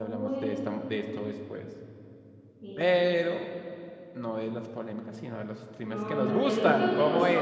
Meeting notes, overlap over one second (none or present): present